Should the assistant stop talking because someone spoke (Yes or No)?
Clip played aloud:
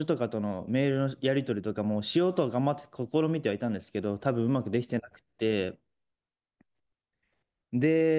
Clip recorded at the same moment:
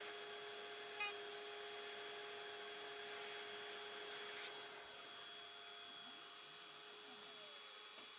No